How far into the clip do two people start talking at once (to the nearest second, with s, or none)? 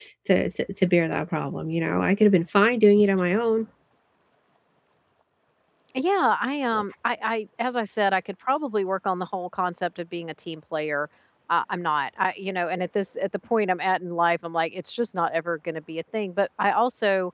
none